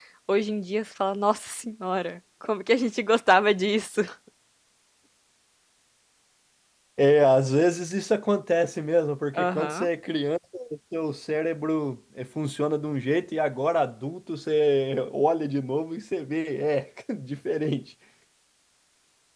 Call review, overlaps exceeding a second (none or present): none